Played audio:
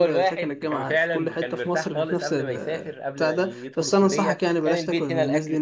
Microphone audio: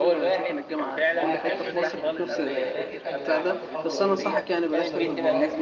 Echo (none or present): present